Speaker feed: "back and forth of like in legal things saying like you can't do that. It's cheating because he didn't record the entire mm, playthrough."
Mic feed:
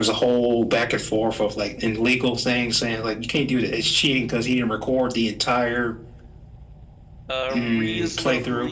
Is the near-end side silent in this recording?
No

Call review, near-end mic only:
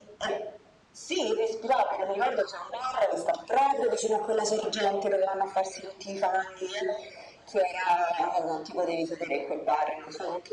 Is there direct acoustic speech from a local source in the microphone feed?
No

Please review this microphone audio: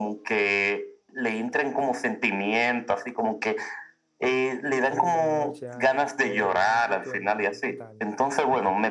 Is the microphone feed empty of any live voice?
No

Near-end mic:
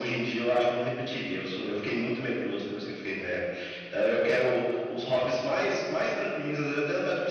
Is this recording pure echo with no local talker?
Yes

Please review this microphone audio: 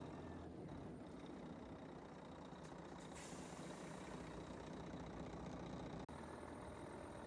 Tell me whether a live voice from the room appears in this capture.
No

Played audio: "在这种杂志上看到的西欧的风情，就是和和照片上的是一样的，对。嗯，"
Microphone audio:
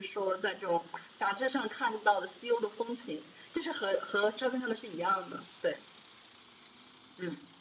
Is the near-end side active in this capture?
No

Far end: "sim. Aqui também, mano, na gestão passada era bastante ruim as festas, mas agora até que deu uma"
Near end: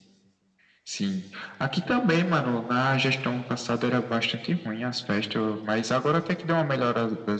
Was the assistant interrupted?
No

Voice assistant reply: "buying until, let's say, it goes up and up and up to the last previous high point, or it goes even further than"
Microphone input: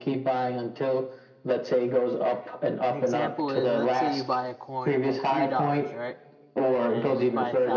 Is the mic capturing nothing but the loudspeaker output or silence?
No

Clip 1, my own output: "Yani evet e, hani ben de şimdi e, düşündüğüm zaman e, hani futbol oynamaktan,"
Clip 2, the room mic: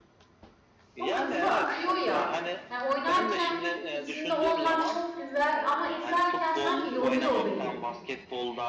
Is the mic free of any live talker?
No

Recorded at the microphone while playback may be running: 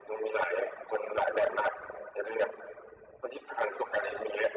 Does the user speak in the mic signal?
No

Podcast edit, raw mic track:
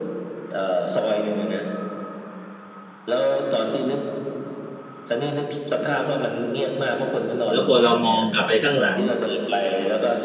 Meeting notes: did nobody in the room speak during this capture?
No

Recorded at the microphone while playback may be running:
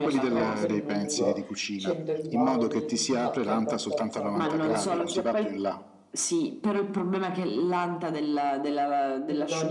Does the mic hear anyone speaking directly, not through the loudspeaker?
Yes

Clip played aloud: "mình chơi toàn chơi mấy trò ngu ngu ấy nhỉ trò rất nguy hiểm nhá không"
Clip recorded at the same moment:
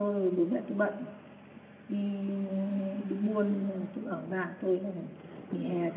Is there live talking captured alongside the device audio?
Yes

